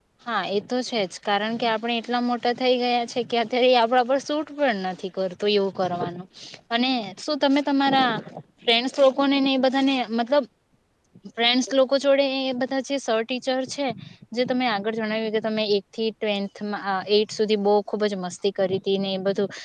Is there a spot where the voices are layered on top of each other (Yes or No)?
No